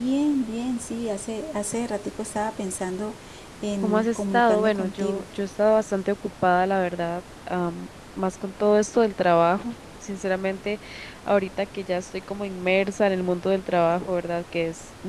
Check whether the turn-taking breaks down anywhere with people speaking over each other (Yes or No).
Yes